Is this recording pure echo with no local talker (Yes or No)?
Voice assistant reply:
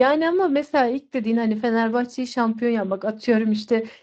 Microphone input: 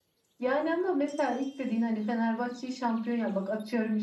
Yes